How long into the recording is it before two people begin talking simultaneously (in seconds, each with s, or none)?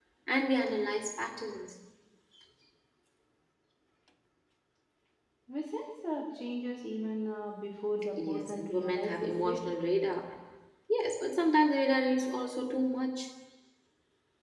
8.2 s